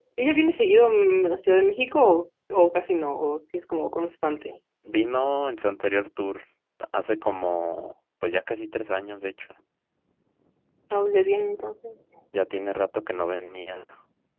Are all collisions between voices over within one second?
Yes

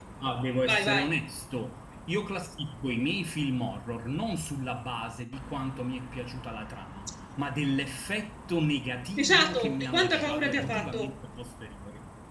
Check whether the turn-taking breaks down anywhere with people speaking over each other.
Yes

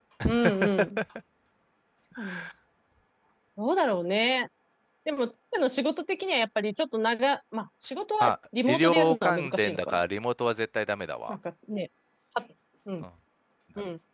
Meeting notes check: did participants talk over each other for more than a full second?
Yes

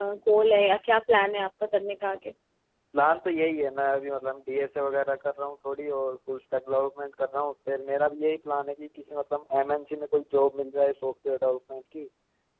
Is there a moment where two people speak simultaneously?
No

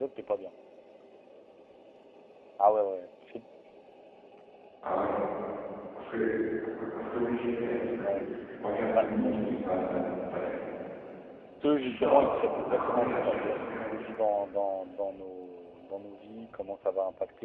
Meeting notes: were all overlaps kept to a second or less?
No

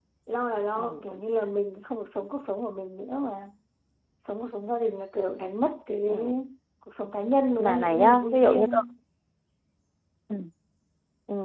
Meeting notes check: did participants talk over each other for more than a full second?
Yes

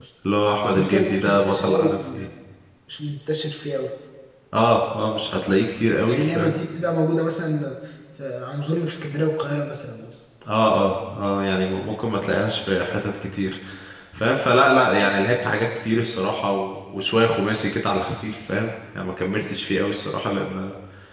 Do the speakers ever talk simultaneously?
Yes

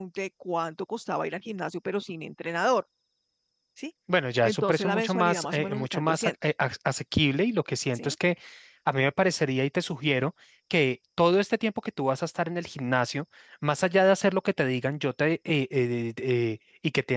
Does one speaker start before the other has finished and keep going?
Yes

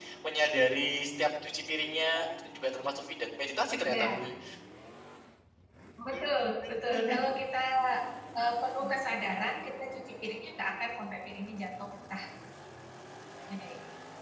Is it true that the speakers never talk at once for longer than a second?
Yes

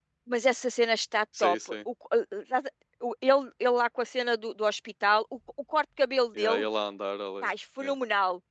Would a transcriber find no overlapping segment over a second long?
Yes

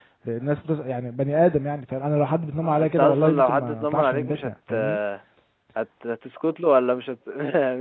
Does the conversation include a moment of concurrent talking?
Yes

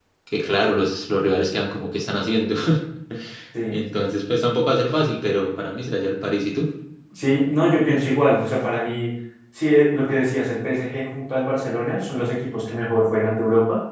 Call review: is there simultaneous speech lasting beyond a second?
No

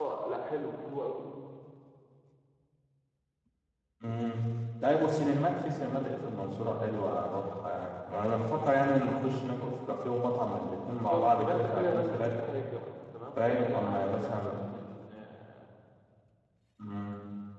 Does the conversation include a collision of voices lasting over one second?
Yes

